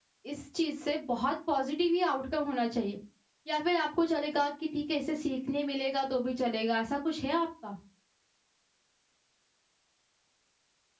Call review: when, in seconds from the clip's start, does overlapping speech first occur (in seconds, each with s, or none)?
none